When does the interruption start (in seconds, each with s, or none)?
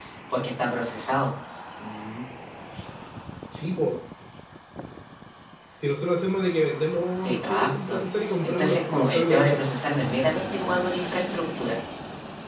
7.2 s